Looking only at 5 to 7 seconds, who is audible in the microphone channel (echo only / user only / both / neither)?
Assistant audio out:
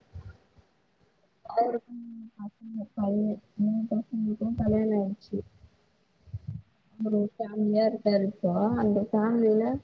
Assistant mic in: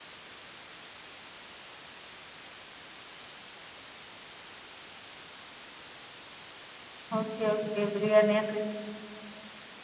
neither